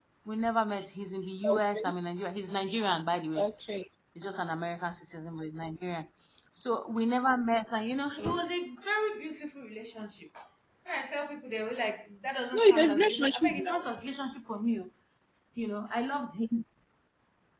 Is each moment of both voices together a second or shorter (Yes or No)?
No